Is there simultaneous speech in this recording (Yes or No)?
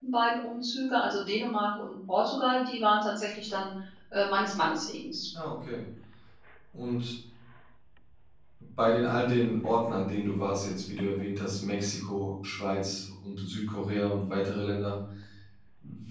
No